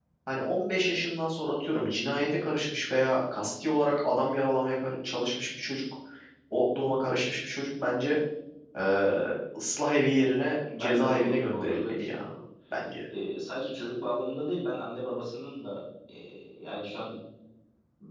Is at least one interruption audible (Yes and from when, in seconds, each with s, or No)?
Yes, from 10.7 s